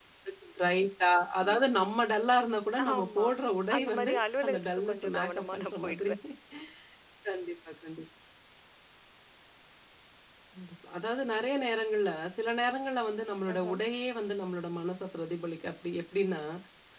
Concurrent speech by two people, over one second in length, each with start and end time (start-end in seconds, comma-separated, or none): 3.8-6.1